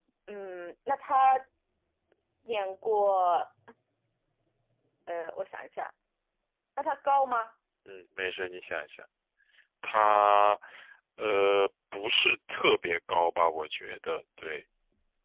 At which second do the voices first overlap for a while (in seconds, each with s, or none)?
none